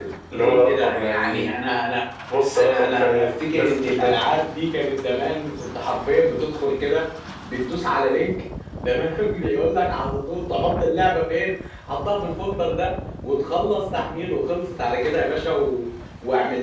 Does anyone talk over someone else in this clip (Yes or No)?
Yes